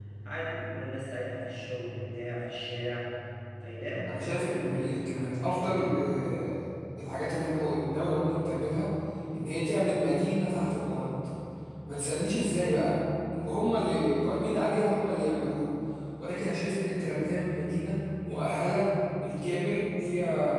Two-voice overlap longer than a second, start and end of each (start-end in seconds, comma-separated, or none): 4.1-6.0